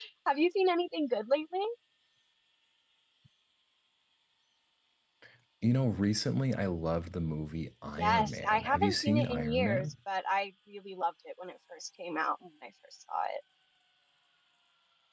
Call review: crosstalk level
present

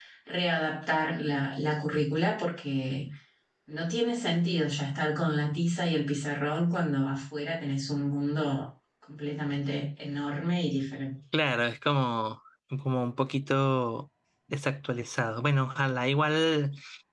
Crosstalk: none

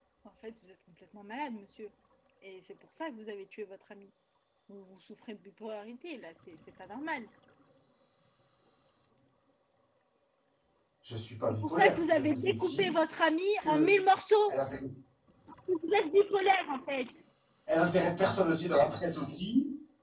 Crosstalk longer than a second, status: present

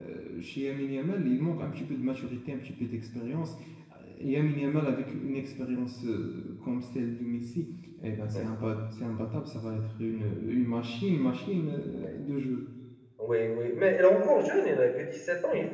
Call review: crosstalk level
none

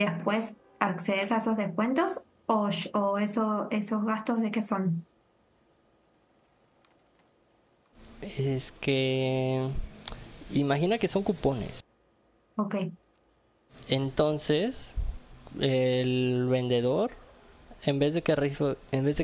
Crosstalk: none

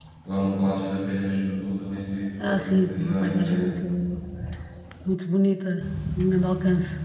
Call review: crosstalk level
present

